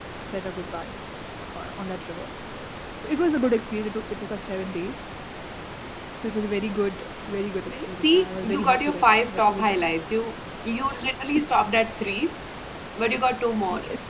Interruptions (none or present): present